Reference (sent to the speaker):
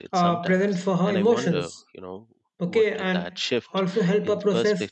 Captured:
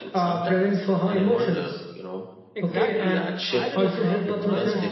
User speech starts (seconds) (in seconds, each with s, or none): 2.5 s